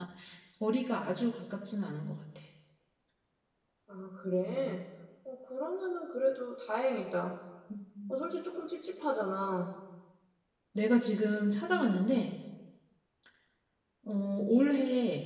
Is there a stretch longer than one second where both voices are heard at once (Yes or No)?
No